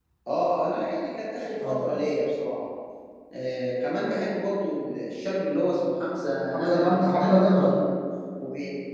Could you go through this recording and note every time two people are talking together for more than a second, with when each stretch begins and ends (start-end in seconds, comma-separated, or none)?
6.5-7.7